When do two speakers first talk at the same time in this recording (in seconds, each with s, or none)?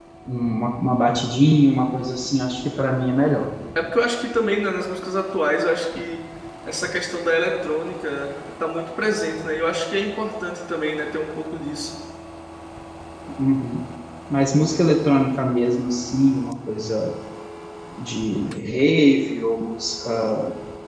none